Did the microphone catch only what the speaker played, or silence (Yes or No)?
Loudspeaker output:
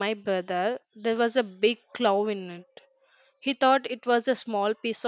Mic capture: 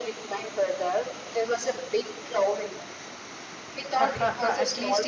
No